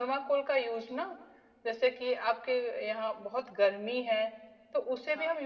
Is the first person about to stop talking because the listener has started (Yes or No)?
No